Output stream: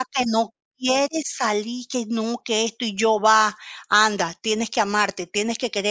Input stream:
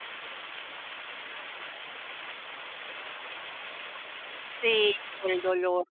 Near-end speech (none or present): present